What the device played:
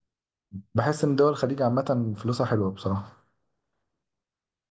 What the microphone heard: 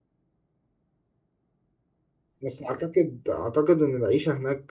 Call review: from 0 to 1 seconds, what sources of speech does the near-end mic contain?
neither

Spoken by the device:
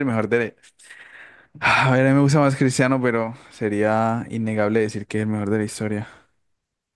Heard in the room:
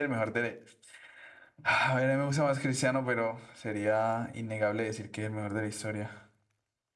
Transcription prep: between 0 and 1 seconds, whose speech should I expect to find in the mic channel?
echo only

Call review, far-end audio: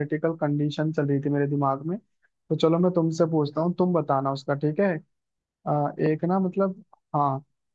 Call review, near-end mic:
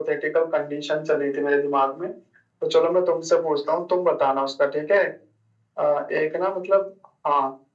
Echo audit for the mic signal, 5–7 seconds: echo only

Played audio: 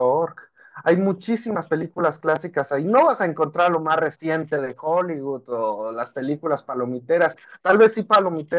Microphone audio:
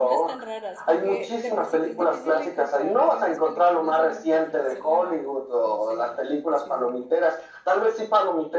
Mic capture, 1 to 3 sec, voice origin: both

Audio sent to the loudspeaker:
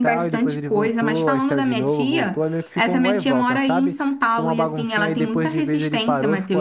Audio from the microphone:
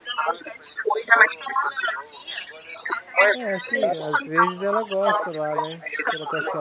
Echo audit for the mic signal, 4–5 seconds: both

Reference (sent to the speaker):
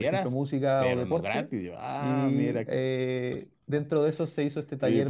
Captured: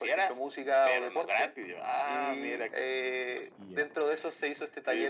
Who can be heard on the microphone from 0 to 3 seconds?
echo only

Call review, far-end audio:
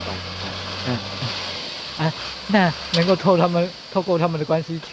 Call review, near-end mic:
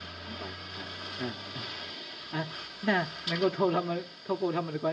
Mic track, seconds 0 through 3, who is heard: echo only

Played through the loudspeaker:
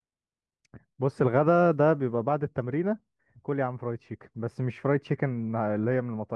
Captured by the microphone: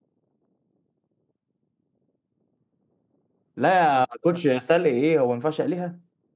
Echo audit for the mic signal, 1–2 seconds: neither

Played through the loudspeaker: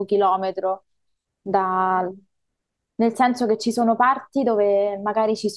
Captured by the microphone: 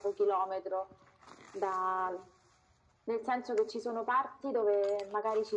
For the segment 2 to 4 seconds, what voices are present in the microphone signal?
echo only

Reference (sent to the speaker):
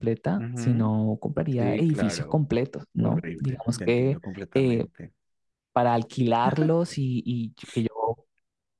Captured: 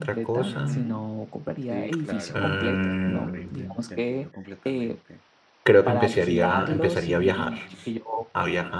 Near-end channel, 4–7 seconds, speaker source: both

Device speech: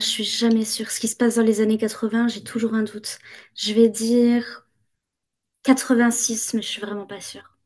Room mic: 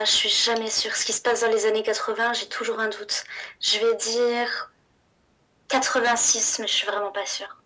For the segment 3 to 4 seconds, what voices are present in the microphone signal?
echo only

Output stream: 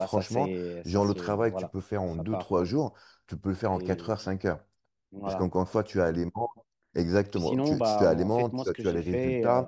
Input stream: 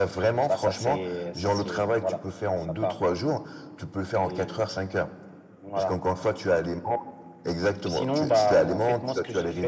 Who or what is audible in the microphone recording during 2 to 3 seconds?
echo only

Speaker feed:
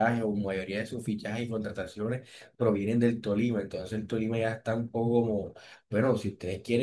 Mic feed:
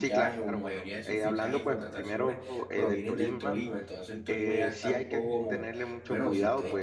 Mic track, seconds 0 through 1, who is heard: both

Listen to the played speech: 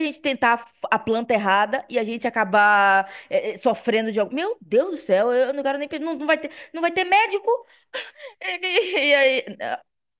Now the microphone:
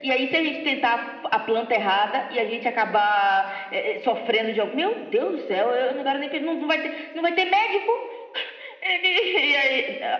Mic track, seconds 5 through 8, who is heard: echo only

